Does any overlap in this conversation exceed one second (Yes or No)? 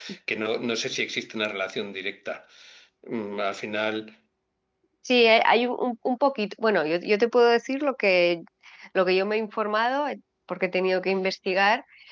No